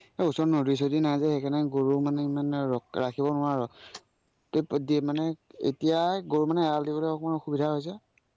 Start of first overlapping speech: none

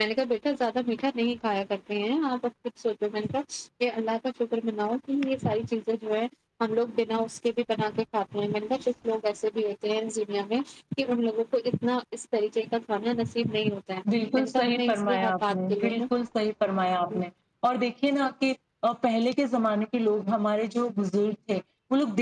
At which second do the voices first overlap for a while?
14.3 s

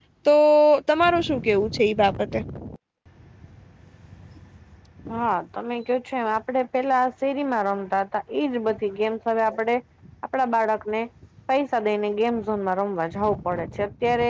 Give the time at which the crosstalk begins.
none

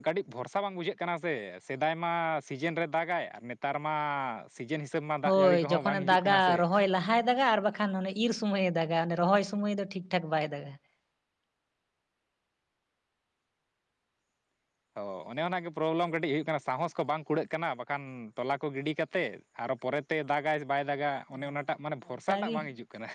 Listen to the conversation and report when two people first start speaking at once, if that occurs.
5.3 s

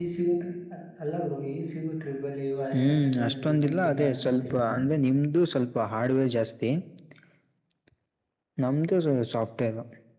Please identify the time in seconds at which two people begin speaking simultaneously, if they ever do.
2.7 s

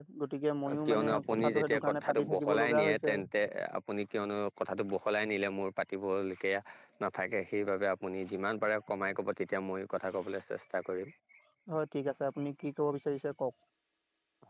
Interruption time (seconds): 0.8 s

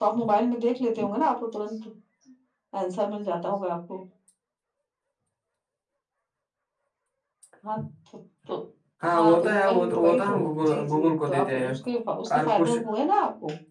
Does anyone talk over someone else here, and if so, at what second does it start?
9.1 s

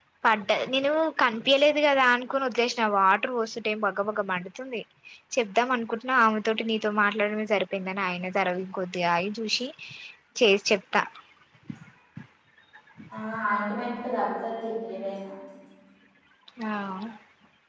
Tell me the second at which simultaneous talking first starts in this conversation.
none

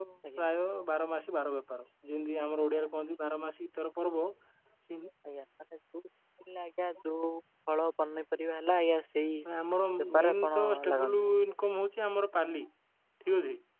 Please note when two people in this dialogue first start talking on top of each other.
10.0 s

